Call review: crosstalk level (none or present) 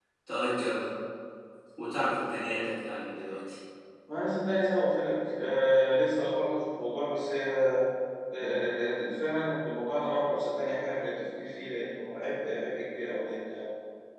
none